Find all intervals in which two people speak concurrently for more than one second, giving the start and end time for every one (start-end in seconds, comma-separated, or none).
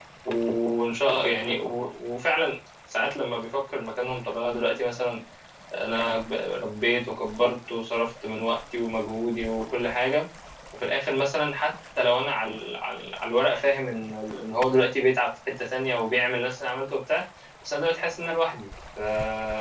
none